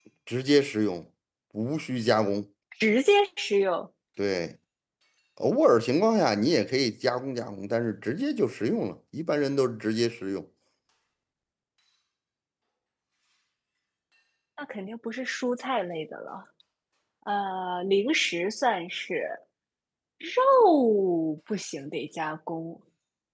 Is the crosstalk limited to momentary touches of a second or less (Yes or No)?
Yes